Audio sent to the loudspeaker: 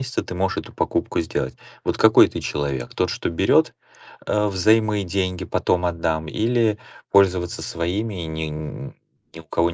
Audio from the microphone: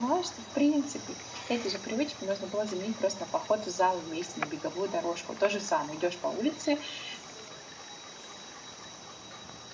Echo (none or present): none